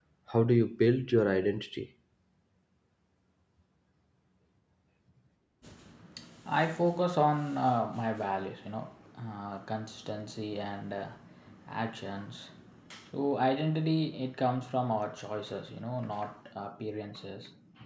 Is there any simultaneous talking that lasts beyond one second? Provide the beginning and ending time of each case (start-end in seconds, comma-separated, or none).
none